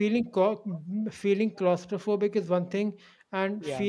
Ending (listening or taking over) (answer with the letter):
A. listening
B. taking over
A